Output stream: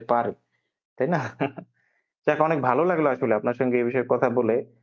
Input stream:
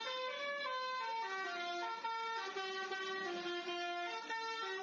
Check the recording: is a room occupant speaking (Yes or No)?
No